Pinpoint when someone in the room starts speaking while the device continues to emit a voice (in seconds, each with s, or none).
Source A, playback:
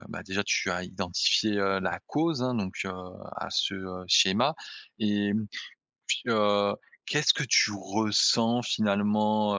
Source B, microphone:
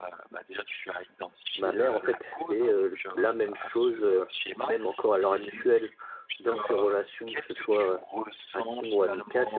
1.6 s